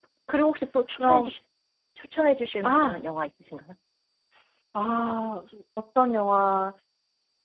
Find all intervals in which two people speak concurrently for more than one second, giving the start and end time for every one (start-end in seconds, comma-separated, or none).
none